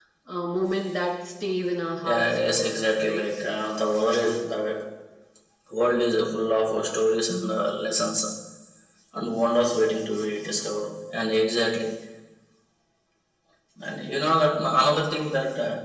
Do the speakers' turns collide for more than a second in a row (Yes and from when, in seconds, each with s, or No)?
Yes, from 2.0 s